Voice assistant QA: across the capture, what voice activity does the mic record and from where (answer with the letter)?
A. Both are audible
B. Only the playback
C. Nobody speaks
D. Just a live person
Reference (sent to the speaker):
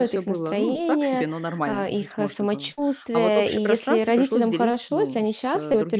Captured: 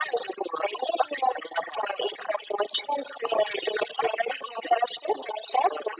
B